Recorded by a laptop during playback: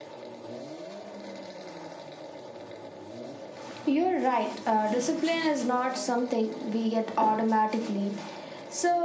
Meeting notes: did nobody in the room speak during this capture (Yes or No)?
Yes